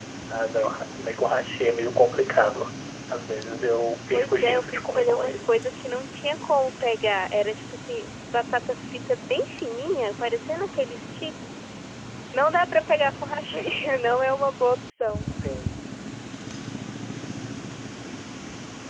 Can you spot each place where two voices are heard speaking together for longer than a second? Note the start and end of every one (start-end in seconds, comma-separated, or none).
4.1-5.4